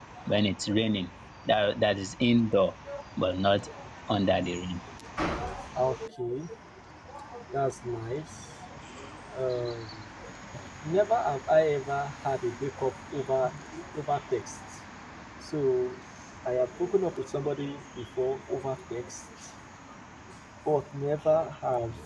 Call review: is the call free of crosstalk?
Yes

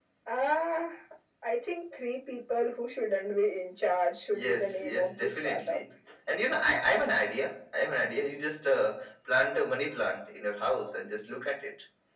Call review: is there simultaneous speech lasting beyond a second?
Yes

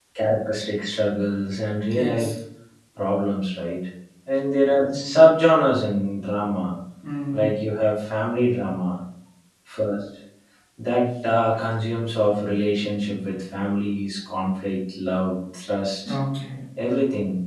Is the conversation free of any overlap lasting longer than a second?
Yes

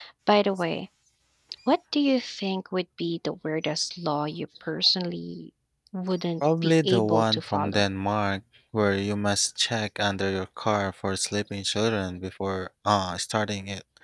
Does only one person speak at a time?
No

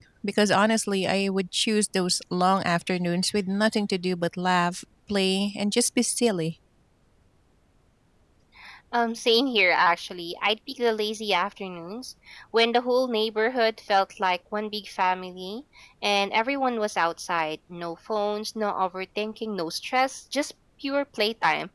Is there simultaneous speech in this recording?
No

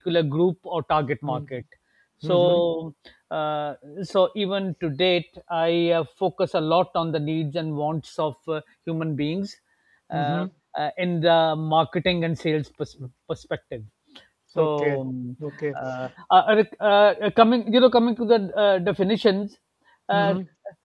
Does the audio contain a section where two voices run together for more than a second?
No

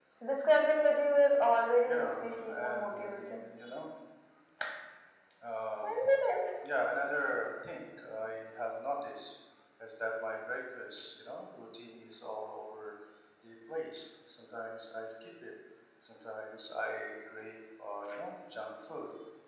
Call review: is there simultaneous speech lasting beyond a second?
Yes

